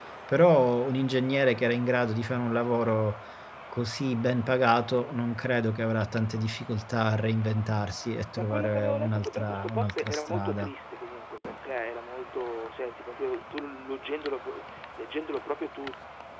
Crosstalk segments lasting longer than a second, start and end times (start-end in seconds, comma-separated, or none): 8.3-10.7